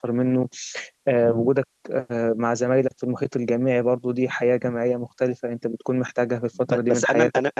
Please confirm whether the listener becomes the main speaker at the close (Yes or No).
Yes